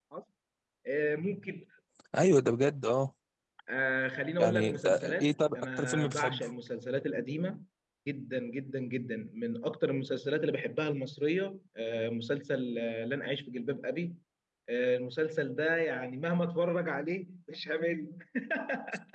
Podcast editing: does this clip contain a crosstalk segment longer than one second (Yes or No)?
Yes